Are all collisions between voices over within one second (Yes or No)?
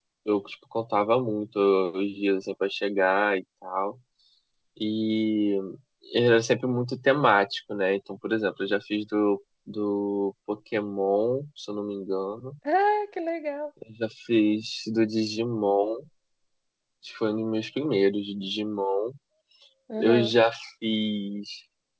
Yes